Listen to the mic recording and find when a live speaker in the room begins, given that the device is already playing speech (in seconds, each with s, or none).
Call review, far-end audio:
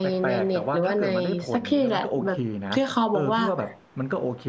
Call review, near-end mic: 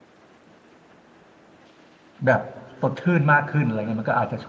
2.3 s